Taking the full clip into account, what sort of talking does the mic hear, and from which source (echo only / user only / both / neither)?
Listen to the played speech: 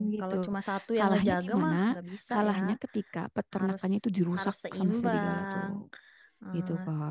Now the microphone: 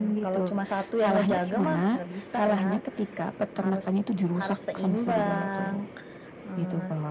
echo only